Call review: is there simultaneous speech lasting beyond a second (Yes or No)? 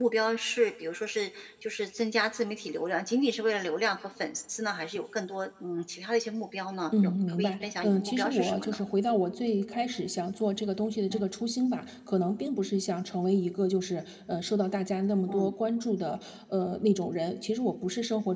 Yes